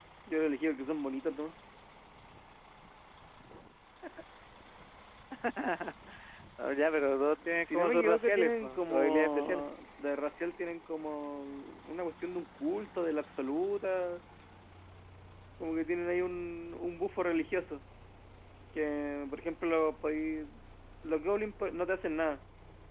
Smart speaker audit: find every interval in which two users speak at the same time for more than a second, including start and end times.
7.6-9.7

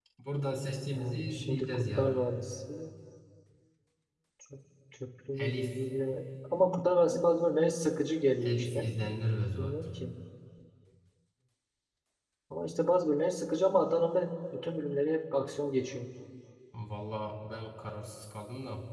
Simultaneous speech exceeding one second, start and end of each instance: 0.9-2.3

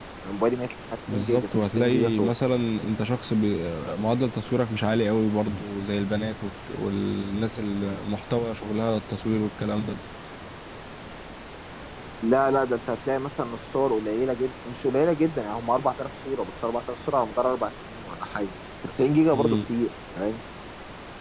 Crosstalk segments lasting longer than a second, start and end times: 1.1-2.3

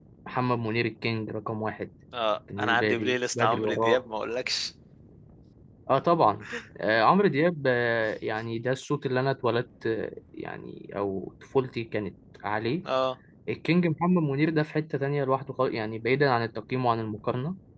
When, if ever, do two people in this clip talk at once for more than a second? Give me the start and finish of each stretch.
2.6-4.0

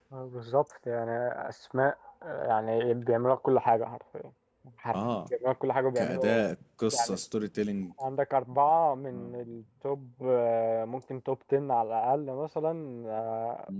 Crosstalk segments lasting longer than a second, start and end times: none

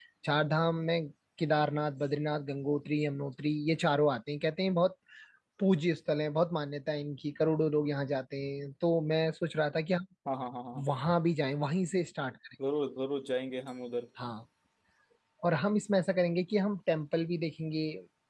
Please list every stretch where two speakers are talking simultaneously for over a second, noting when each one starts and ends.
none

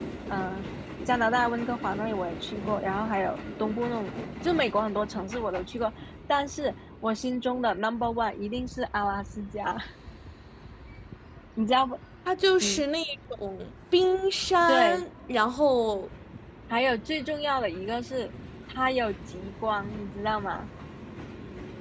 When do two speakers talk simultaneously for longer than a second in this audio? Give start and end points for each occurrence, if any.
none

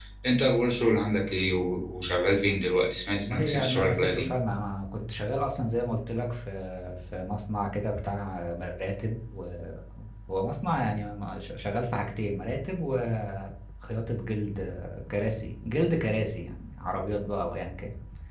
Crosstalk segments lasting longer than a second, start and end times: 3.1-4.3

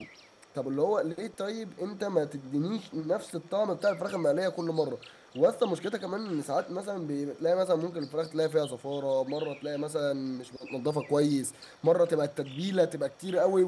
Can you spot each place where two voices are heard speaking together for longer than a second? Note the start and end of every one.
none

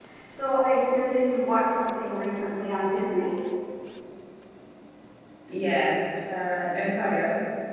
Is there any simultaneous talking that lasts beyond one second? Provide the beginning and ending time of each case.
none

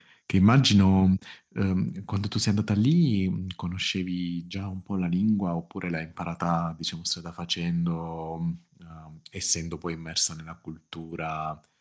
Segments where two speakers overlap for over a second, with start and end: none

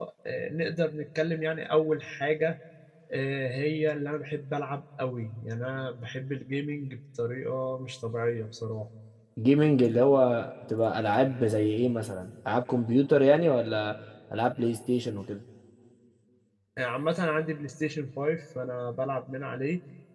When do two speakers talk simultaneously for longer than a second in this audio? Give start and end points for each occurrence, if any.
none

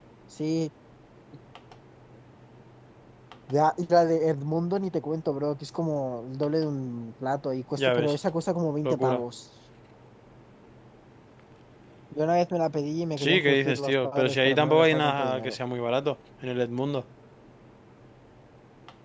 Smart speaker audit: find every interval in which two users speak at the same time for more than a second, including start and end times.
13.2-15.6

